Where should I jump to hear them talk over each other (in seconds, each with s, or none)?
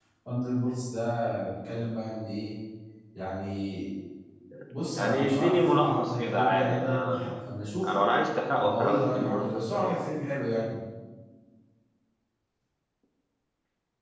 5.0 s